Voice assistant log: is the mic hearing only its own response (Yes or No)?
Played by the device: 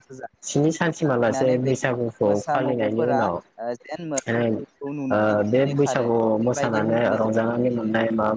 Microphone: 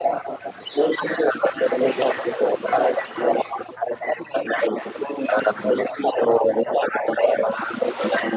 Yes